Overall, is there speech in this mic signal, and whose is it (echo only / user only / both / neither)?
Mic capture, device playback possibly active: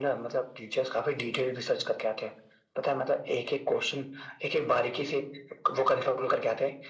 echo only